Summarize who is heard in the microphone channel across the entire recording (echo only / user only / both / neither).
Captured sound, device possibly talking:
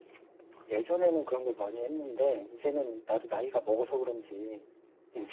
both